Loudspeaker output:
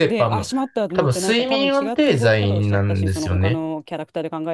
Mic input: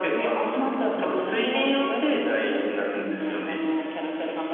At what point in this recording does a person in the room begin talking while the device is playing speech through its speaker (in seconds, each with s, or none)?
none